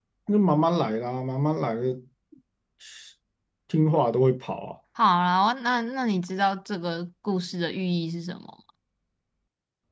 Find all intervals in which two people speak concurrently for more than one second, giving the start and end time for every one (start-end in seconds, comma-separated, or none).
none